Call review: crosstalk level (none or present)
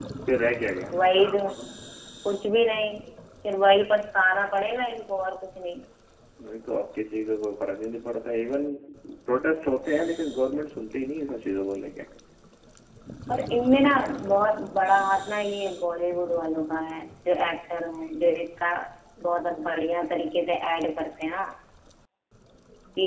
none